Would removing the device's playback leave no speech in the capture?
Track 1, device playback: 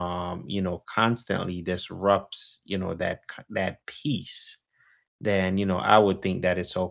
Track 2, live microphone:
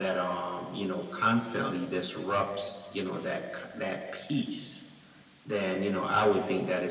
Yes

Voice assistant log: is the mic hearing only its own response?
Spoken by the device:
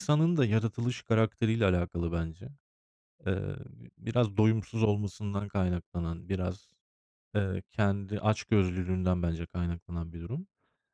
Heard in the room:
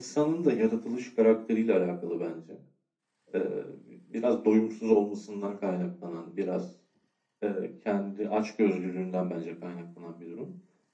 Yes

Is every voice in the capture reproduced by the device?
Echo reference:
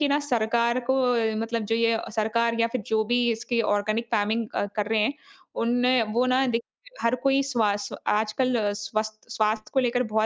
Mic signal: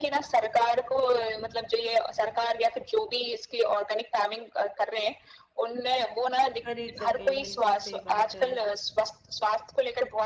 No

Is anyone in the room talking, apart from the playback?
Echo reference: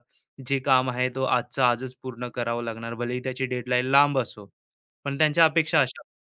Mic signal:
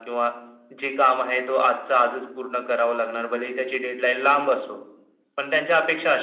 No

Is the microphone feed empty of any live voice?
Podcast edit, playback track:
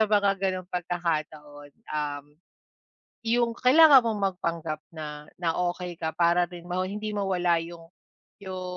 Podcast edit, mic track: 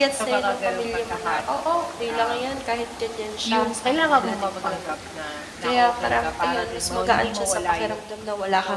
No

